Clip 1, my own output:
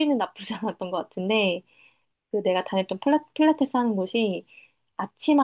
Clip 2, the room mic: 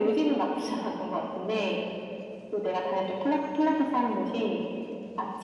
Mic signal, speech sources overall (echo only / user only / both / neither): echo only